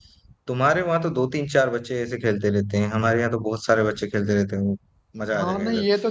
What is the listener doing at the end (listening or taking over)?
taking over